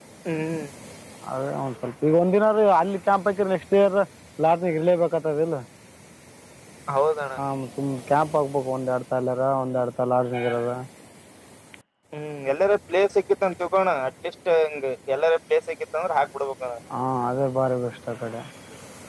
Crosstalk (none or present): none